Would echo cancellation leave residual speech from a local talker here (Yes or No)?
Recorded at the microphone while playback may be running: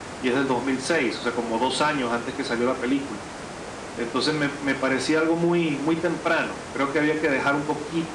No